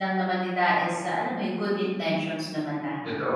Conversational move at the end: taking over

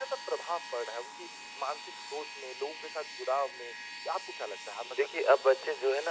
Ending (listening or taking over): taking over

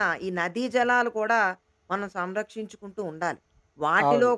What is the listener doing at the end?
listening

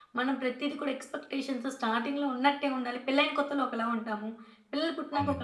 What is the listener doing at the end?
listening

